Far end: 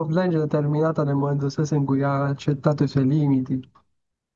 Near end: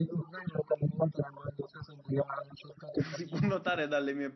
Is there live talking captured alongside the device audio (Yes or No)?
Yes